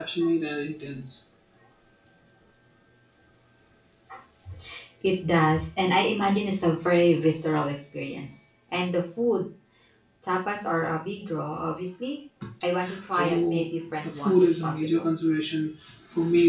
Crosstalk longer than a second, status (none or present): present